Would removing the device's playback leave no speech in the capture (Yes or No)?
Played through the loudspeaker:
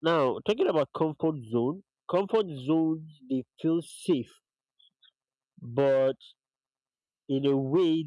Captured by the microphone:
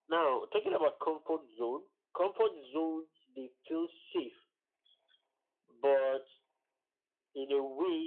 Yes